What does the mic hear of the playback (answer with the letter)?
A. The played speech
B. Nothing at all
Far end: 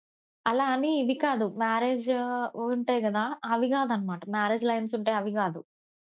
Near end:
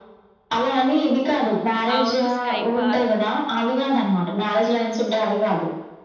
A